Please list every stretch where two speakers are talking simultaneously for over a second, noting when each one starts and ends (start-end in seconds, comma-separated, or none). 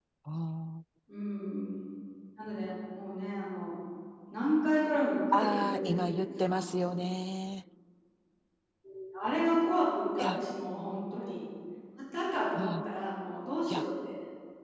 5.3-7.0